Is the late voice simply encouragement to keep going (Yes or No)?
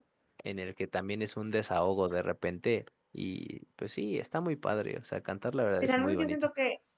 No